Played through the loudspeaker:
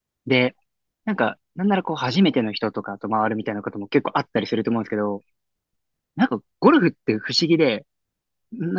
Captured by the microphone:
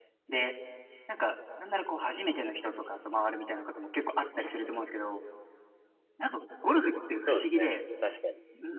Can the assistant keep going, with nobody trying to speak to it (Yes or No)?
No